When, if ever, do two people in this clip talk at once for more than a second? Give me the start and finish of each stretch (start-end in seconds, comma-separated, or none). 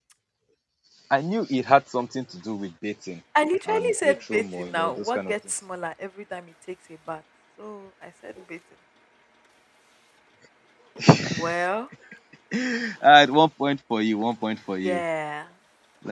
3.7-5.3